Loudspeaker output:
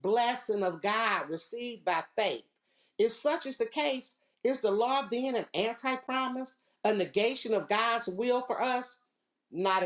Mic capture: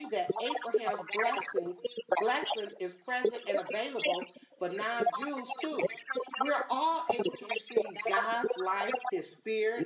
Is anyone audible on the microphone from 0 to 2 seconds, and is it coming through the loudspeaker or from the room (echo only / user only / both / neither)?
both